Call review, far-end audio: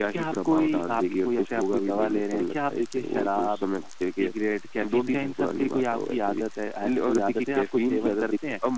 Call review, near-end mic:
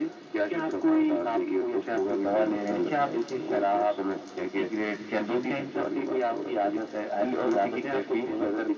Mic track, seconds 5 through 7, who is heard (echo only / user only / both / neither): echo only